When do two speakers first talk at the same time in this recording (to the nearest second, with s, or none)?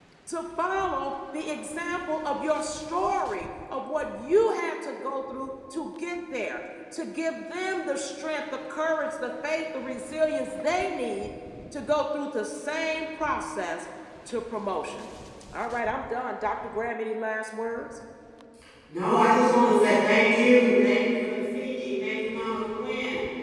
none